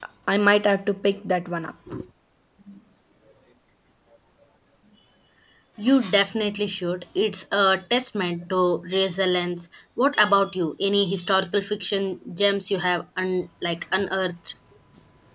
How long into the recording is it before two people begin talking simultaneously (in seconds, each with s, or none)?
none